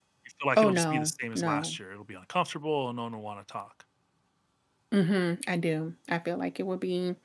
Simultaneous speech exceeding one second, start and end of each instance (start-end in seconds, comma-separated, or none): 0.6-1.8